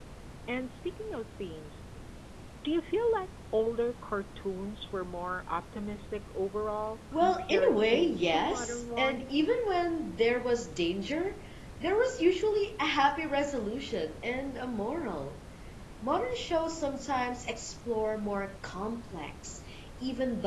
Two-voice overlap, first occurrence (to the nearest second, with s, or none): 7 s